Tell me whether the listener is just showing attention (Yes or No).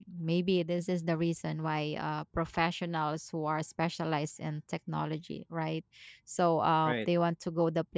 Yes